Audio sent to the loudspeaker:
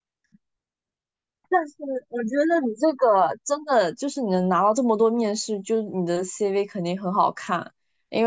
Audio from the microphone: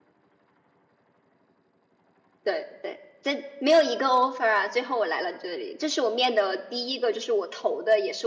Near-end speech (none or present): present